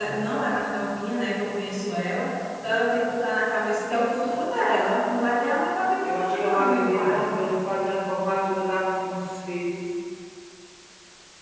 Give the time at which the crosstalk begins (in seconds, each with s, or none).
6.0 s